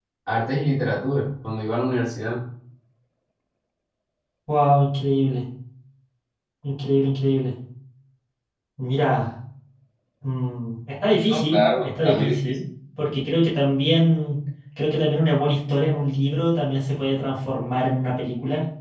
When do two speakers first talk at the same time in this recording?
11.3 s

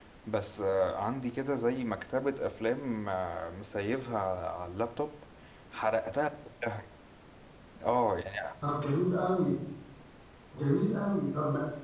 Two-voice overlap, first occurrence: none

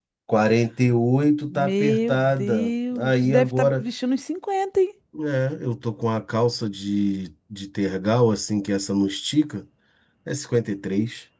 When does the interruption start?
1.5 s

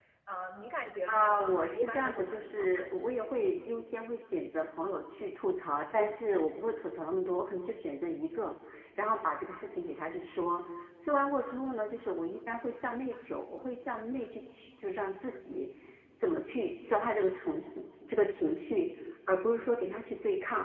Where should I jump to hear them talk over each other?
1.1 s

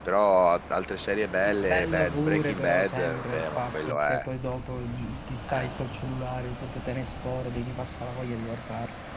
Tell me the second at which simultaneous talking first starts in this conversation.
1.4 s

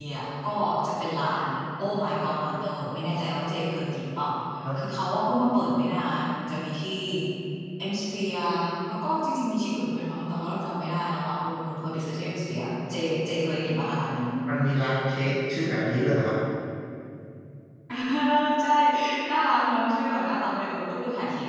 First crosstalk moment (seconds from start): none

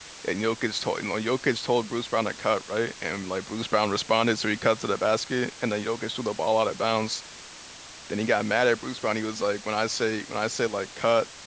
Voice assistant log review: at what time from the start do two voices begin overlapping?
none

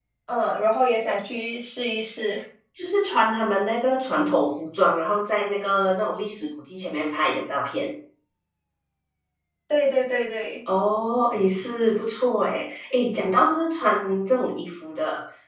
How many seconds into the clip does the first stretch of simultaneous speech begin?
none

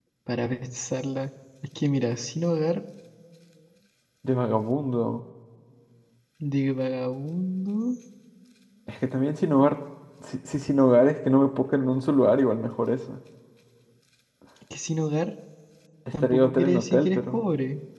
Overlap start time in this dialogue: 16.2 s

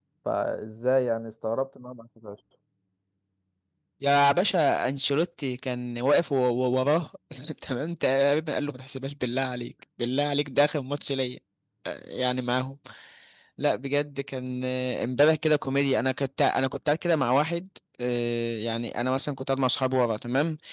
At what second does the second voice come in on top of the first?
none

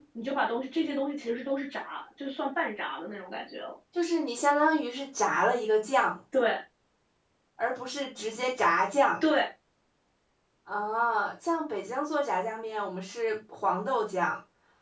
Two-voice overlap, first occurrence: none

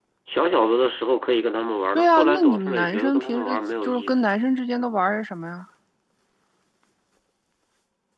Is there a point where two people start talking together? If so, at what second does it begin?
1.9 s

